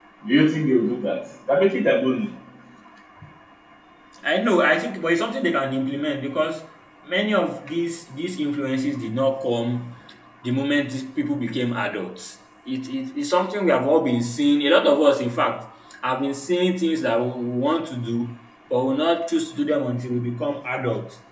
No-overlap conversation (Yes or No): Yes